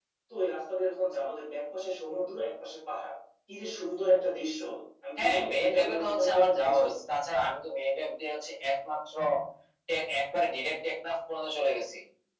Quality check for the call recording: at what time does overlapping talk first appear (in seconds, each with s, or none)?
5.2 s